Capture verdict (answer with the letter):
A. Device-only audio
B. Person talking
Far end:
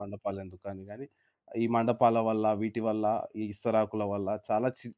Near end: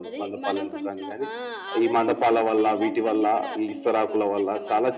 B